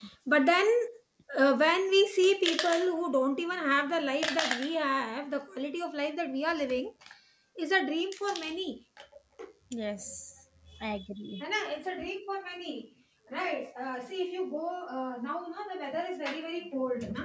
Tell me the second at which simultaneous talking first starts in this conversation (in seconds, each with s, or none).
none